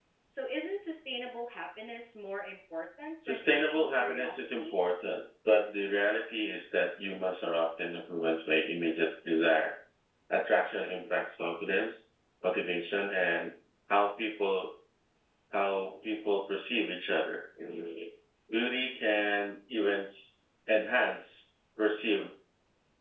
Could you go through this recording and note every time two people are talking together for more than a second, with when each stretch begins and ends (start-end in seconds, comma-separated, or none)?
3.3-4.8